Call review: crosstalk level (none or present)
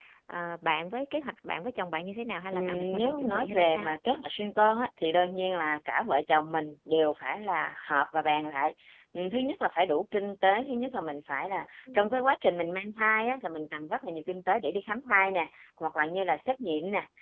present